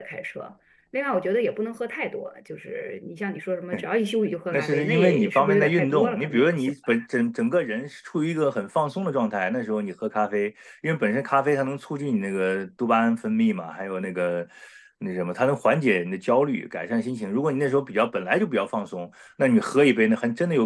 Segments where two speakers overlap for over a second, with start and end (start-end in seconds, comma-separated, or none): 4.5-7.0